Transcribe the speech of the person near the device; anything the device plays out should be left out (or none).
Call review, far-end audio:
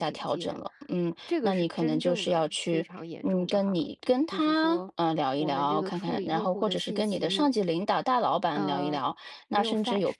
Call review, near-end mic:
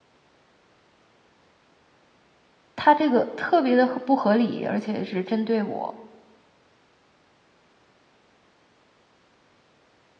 他这个特别的不合理，而且是针对我，